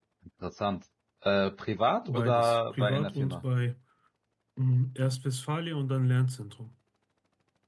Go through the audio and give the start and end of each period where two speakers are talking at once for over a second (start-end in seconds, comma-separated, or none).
2.1-3.4